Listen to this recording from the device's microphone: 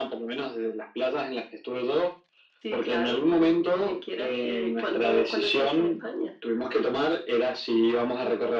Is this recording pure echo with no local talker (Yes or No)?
Yes